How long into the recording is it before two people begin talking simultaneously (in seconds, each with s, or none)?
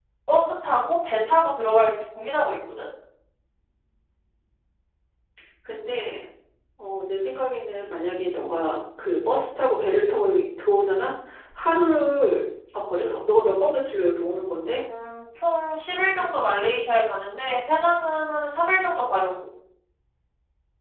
none